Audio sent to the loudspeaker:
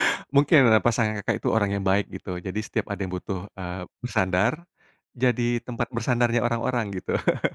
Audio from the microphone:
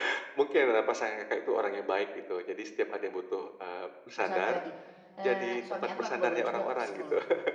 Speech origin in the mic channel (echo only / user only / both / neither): both